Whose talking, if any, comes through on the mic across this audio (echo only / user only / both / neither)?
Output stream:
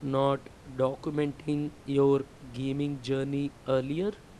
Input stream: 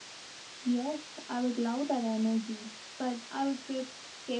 user only